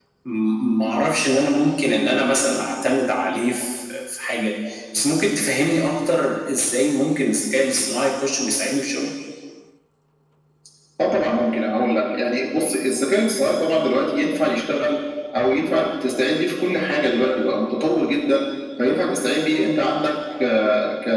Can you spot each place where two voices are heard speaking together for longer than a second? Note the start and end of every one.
none

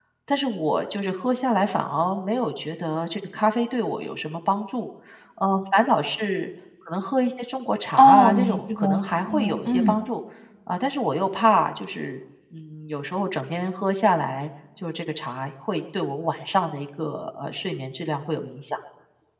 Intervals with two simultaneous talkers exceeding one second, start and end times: 8.0-10.0

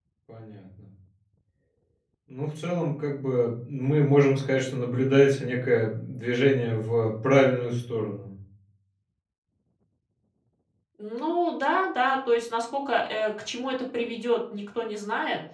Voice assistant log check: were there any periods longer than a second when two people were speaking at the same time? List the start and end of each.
none

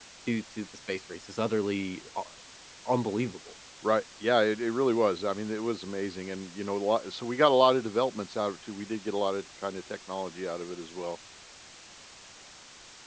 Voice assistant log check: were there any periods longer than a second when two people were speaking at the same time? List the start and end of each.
none

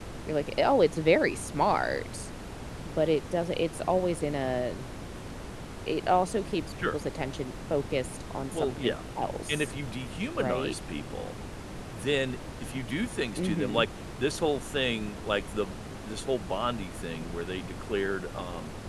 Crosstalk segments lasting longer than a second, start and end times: none

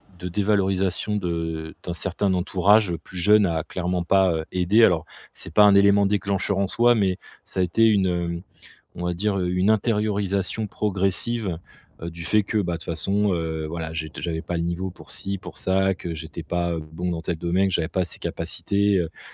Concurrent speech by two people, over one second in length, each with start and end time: none

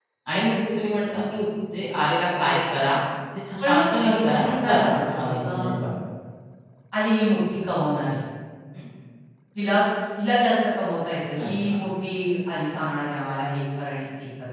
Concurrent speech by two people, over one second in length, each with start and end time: 3.6-5.6

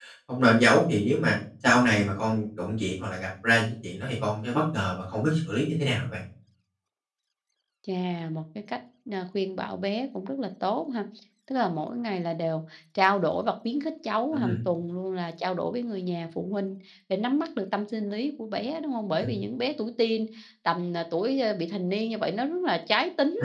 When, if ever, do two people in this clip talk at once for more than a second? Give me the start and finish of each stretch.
none

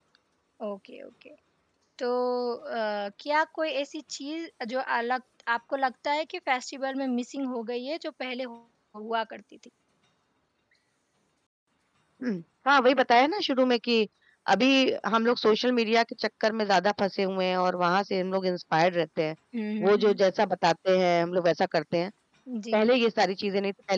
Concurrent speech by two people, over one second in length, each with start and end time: none

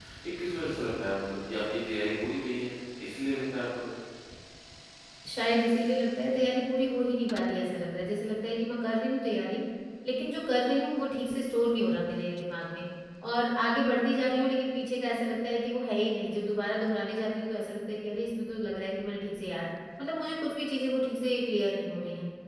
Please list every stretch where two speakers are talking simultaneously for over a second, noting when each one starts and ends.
none

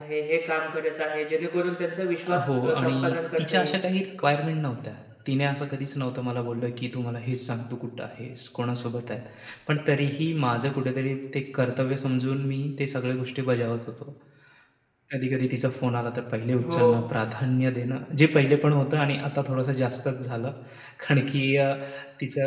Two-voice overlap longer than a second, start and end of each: 2.3-3.7

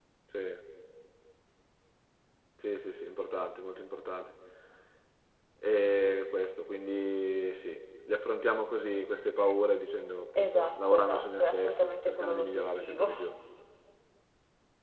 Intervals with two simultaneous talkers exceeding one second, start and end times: 10.4-13.1

